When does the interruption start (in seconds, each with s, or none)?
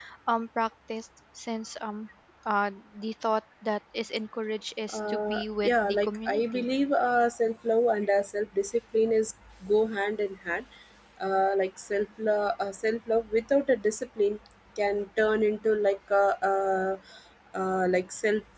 4.9 s